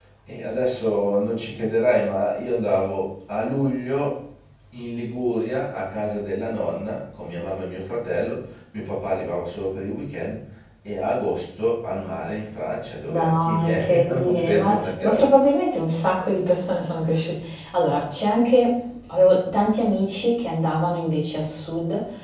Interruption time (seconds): 13.1 s

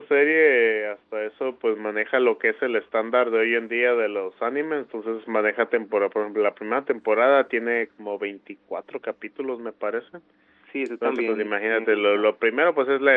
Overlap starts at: 11.0 s

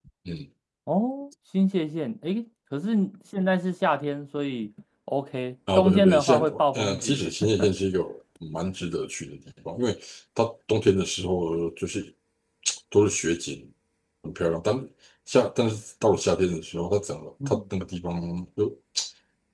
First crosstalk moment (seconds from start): 5.8 s

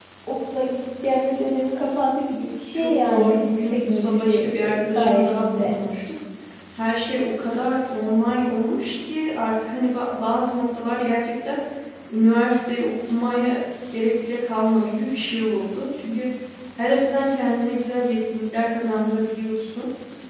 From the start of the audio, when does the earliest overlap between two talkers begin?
2.7 s

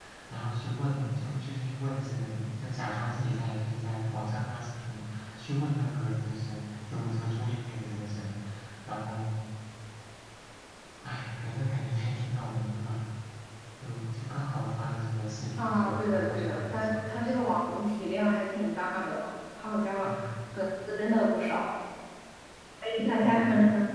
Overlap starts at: 15.6 s

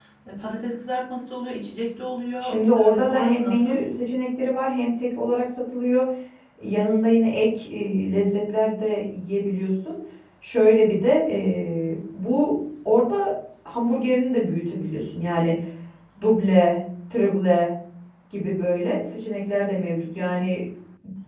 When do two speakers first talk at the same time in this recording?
2.4 s

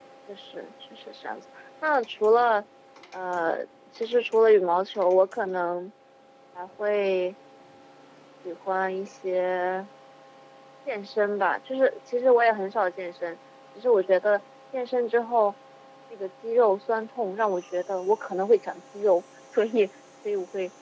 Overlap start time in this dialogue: none

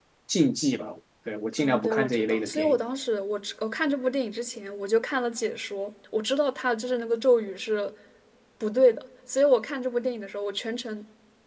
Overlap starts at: 1.6 s

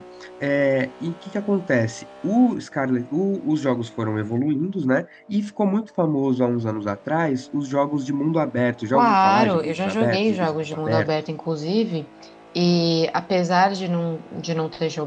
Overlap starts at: 8.9 s

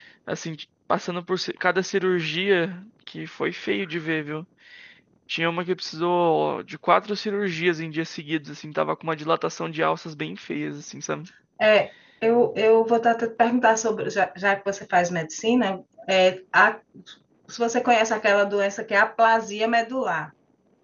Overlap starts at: none

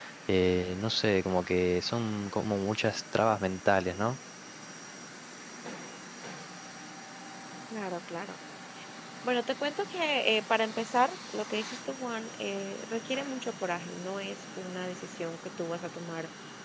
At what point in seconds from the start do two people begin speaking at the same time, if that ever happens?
none

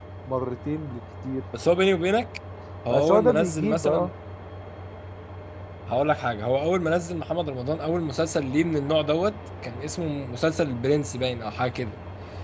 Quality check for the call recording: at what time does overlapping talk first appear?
2.9 s

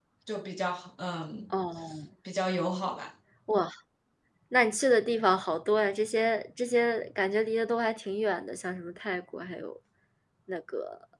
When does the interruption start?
none

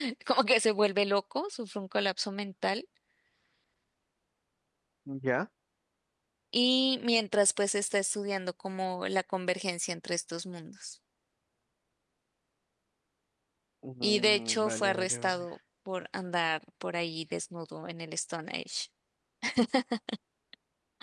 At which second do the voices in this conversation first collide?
14.0 s

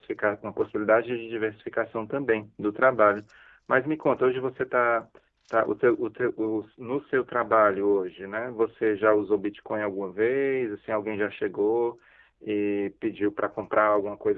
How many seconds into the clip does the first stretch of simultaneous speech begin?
none

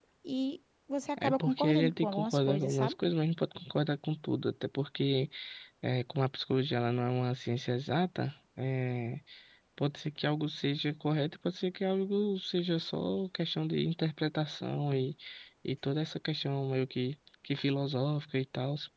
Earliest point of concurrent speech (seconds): 1.2 s

